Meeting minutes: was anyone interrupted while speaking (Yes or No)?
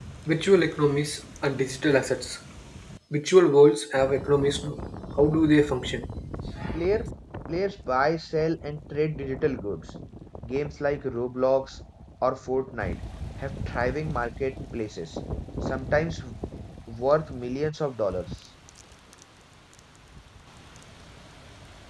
No